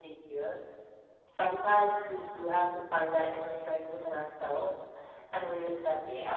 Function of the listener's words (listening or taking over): listening